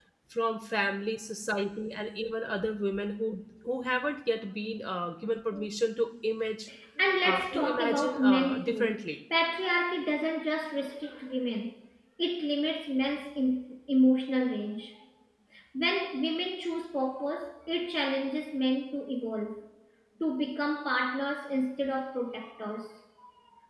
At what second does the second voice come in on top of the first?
7.2 s

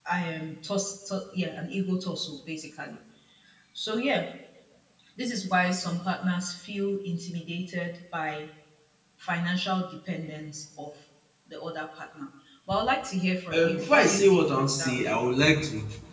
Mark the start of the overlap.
13.5 s

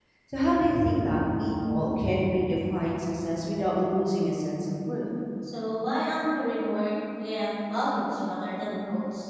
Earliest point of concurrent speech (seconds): none

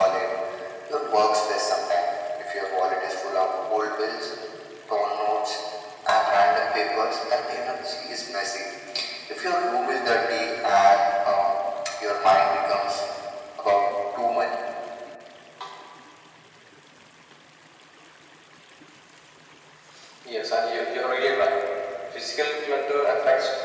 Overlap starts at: none

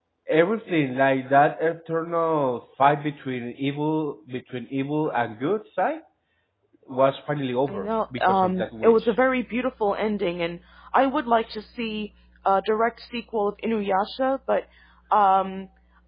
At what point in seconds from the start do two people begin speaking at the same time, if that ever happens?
7.7 s

